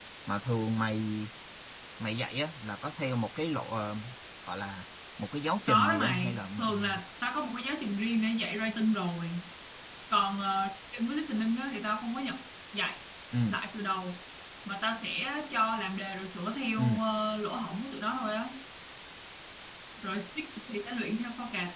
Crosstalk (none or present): present